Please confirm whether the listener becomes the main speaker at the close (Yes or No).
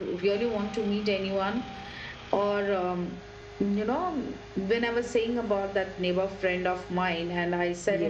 No